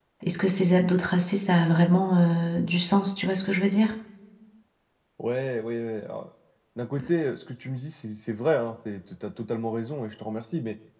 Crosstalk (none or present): none